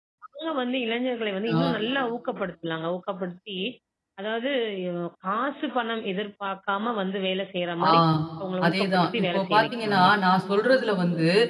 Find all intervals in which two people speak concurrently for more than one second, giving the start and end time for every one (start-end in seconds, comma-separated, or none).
8.6-10.1